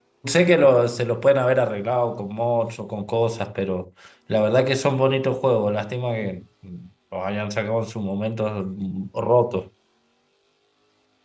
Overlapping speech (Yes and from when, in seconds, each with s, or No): No